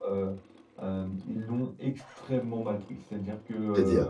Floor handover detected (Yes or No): No